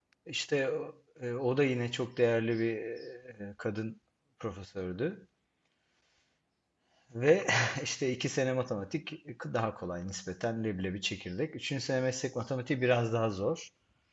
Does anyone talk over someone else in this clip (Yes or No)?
No